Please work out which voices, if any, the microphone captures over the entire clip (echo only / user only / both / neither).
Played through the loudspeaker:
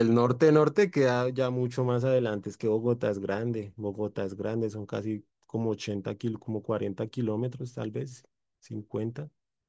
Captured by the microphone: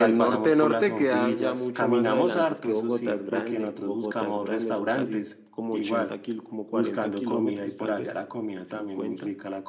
both